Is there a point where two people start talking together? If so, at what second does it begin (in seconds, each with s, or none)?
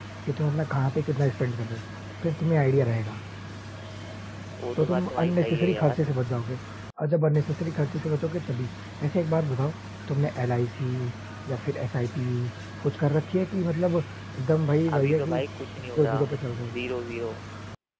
4.8 s